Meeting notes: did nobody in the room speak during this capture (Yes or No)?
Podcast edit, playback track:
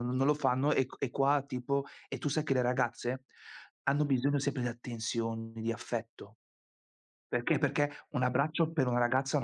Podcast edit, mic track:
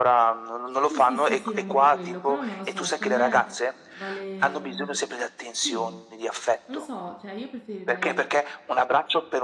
No